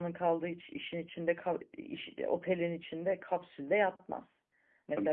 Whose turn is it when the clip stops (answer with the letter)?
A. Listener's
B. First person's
B